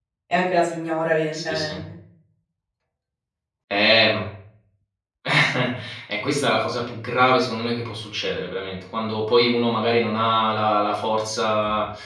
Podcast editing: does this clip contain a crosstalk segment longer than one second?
No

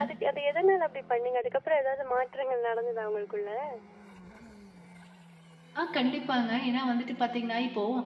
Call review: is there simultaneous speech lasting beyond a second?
No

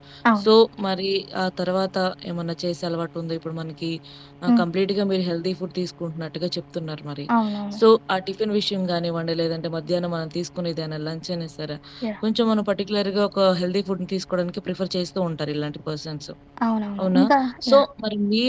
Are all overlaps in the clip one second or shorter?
Yes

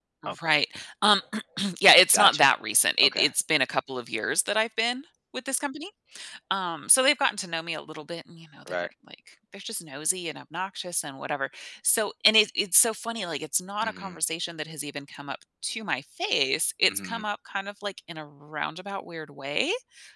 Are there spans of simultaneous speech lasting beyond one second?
No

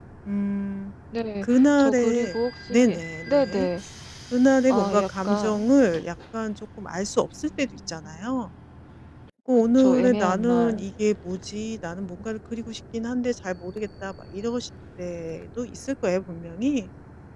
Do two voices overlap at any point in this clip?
Yes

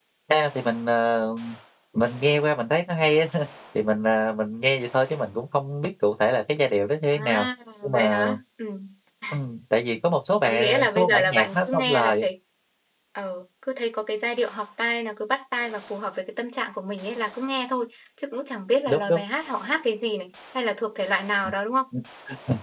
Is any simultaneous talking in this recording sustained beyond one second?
Yes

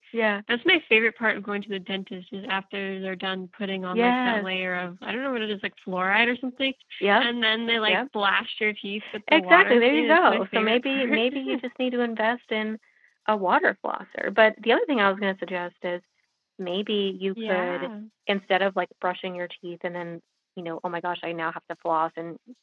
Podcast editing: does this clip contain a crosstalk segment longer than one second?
Yes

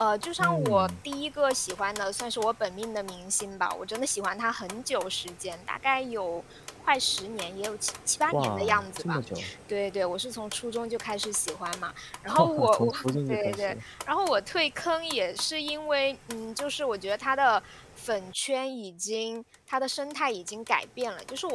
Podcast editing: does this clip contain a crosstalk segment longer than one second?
Yes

